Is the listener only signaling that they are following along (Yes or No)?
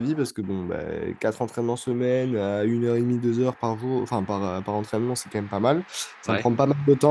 Yes